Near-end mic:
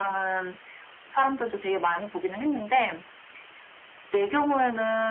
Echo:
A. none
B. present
B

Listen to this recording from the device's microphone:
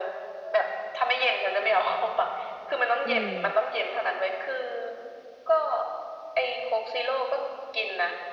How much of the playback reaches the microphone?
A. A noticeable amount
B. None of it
A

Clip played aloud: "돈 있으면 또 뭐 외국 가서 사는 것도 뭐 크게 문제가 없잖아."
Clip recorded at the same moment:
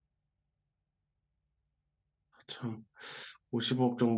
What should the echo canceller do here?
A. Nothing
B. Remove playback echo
A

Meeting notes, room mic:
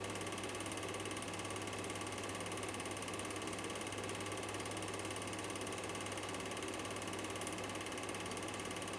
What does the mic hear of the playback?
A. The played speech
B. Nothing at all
B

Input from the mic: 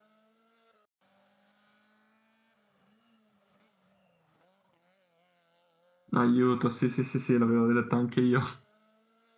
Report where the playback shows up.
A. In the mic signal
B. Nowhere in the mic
B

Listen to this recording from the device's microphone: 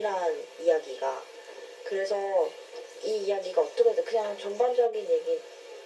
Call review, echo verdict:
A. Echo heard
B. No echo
A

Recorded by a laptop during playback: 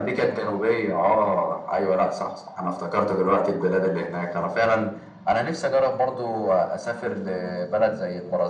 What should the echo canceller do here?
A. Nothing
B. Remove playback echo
B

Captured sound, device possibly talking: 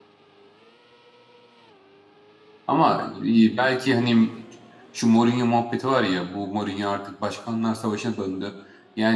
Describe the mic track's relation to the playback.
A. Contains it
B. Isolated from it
B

